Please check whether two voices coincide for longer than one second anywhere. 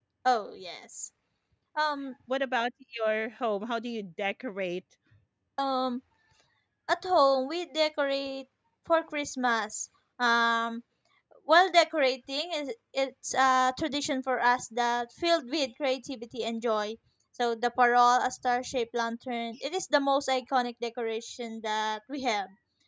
No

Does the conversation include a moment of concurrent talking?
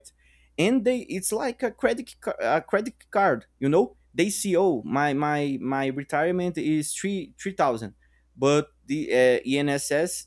No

